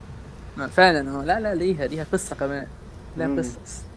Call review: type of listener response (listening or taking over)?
taking over